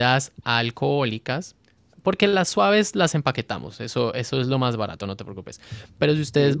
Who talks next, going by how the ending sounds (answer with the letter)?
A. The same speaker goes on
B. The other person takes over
A